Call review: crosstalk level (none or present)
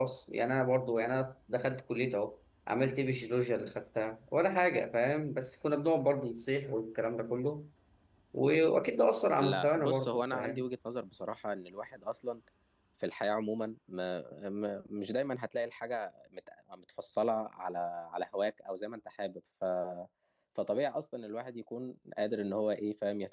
present